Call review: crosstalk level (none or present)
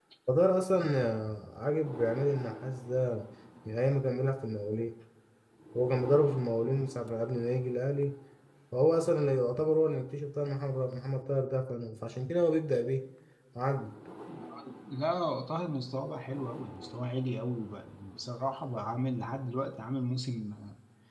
none